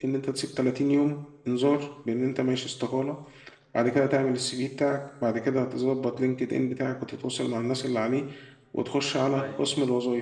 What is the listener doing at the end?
listening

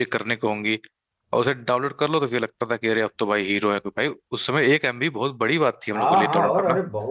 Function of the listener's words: taking over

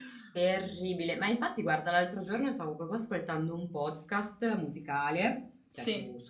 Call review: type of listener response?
listening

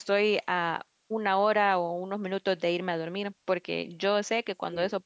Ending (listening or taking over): listening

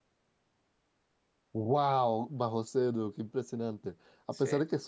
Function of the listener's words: listening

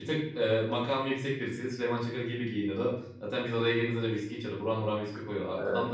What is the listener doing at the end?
listening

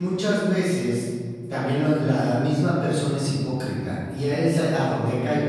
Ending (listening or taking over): listening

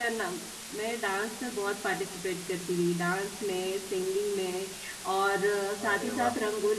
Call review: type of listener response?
listening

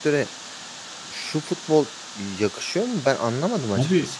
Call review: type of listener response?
taking over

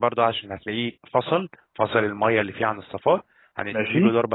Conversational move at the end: listening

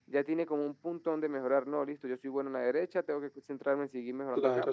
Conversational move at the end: taking over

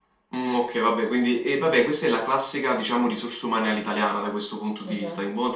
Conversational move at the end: listening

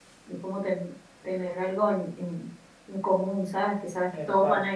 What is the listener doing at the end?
listening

